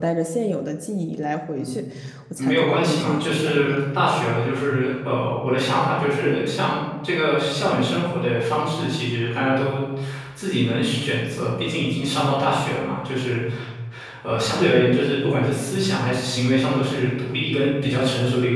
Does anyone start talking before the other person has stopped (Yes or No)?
Yes